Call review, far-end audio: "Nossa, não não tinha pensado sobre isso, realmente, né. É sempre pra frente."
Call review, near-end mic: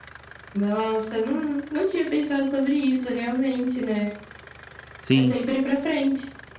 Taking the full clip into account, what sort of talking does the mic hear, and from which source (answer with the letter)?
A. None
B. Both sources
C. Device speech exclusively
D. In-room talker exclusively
B